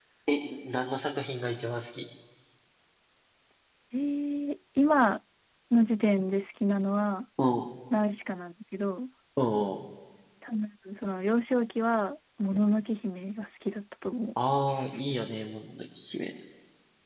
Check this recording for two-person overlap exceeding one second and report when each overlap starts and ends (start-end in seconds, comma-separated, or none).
none